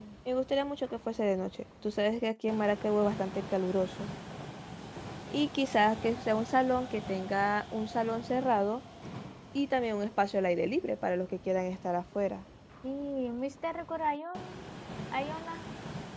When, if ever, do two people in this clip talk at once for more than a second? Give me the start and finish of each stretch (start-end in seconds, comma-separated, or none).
none